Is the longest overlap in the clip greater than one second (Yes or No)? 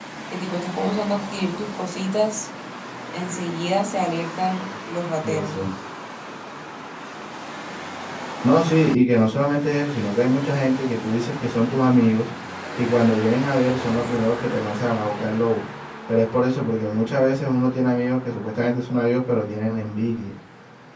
No